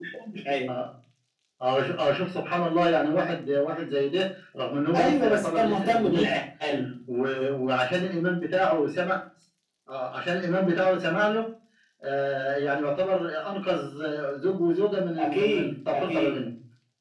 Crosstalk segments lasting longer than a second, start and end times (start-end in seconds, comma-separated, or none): 4.9-6.3, 15.2-16.4